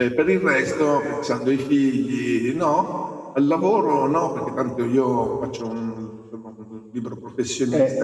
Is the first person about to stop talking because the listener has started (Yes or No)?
Yes